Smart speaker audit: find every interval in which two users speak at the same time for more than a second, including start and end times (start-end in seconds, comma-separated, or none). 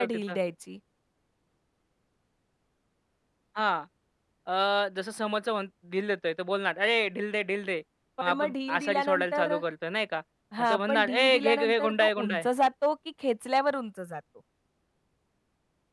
8.2-9.6, 10.6-12.4